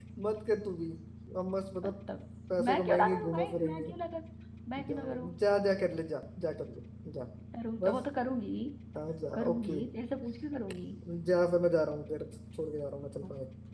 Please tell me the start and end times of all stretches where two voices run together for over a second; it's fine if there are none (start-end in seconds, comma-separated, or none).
2.7-3.9